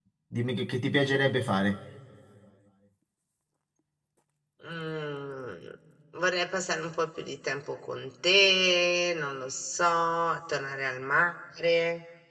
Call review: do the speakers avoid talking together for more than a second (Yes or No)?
Yes